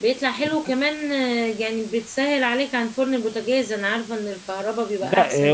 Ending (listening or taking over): taking over